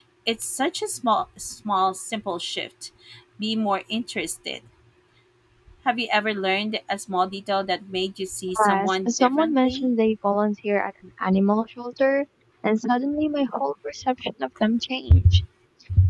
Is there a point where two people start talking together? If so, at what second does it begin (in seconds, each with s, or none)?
8.7 s